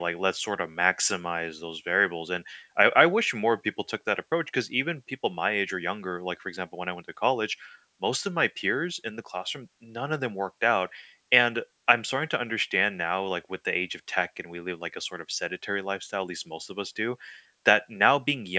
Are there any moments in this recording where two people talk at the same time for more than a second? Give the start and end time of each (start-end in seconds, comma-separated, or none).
none